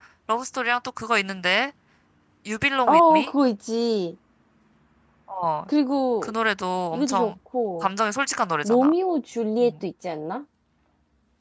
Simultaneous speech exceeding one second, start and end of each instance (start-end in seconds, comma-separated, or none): none